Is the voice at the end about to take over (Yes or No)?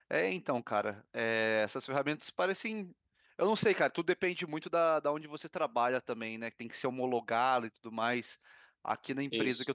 No